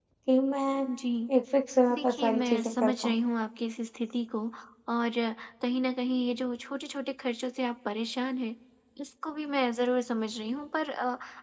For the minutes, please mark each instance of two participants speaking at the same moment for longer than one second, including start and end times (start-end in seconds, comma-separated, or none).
1.9-3.2